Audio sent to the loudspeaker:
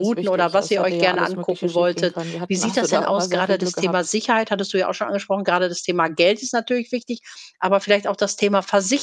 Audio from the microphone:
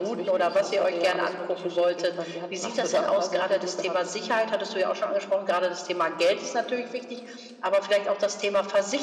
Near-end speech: none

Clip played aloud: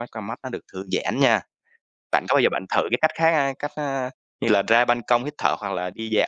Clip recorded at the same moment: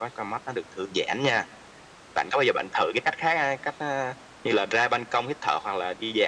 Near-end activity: none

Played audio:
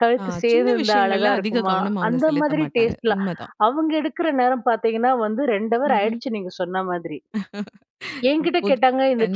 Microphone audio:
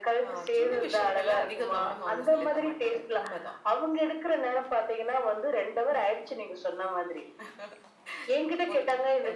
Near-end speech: none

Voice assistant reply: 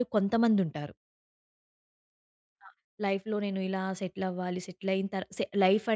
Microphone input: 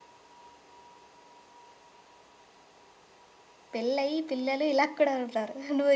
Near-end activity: present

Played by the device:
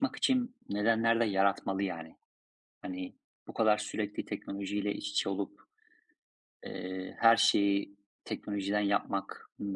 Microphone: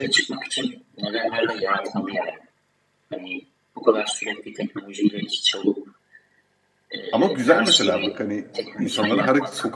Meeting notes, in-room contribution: present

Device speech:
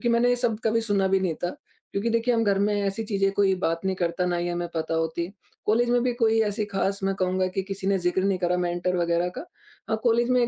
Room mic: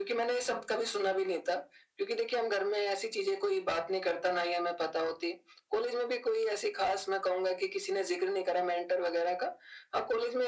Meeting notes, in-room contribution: none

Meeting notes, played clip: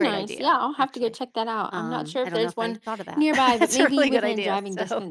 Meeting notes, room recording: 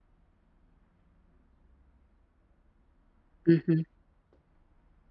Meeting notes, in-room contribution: present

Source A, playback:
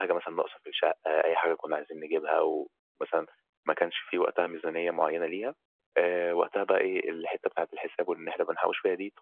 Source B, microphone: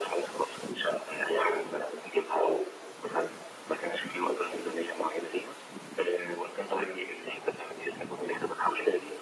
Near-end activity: none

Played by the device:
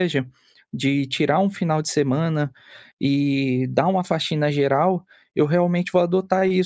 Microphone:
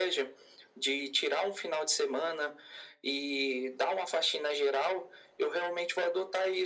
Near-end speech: none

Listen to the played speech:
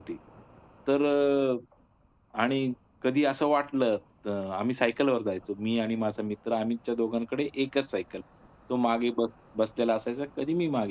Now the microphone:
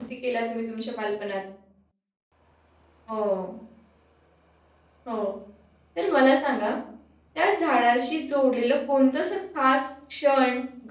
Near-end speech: present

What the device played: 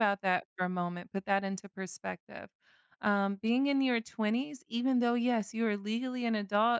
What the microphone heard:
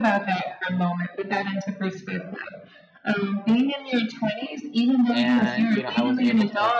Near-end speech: present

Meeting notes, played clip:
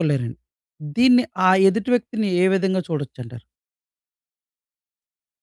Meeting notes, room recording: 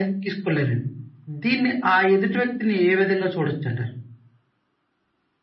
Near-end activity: none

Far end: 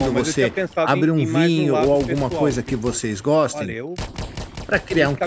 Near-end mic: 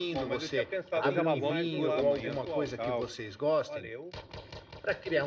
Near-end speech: present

